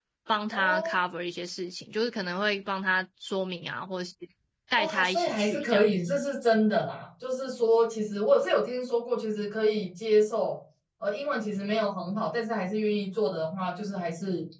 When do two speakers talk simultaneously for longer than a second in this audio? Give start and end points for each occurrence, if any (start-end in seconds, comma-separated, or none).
4.8-6.0